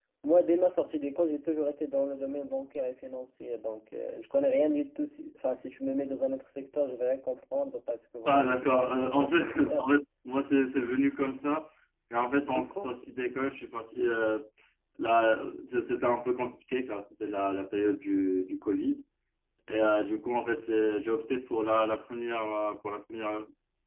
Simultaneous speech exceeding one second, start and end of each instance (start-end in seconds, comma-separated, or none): 8.3-9.9